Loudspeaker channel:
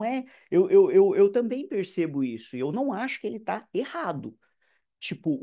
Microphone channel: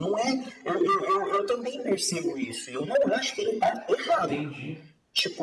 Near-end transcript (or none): entendi.